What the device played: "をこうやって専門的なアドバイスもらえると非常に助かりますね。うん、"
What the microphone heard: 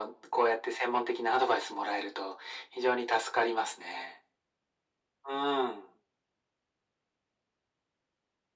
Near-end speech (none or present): none